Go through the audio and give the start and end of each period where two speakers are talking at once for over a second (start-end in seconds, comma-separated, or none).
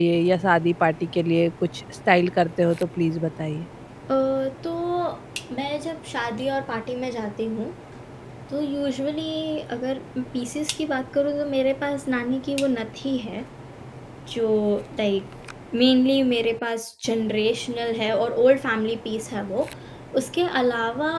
none